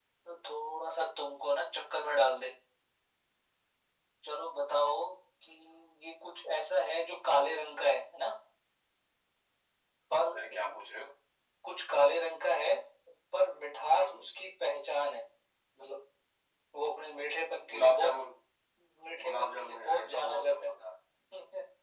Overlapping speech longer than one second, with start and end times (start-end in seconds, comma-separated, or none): 19.2-20.7